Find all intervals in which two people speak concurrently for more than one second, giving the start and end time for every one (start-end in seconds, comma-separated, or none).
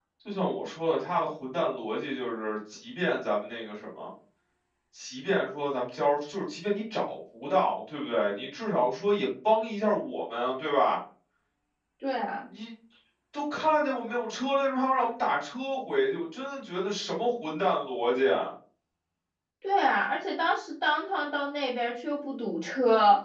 none